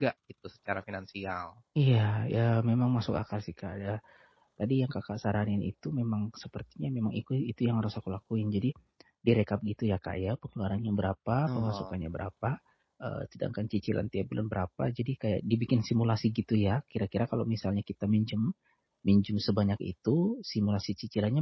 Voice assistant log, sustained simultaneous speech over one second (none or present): none